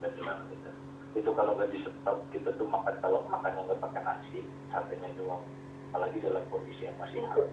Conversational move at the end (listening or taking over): listening